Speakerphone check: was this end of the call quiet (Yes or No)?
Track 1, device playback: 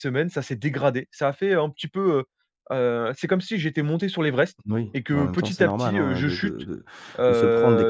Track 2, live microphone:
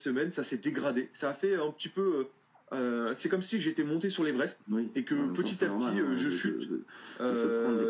Yes